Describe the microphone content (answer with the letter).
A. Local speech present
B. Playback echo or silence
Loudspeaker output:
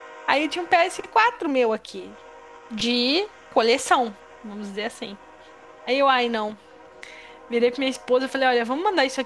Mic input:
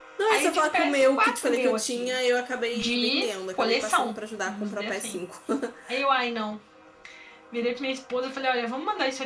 A